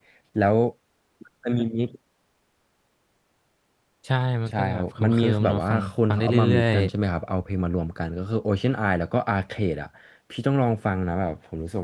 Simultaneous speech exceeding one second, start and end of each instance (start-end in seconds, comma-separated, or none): 4.5-6.8